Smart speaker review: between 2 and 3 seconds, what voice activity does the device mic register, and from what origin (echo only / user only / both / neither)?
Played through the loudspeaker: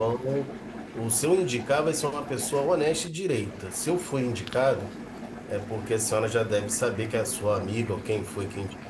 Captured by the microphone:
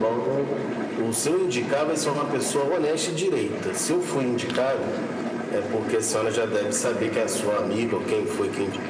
echo only